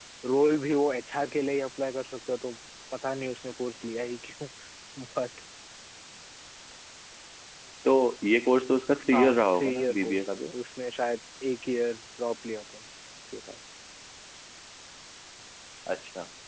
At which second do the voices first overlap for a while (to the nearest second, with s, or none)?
9 s